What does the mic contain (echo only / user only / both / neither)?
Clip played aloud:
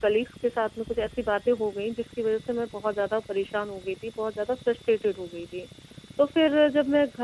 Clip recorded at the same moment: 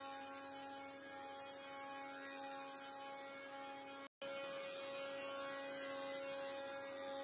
neither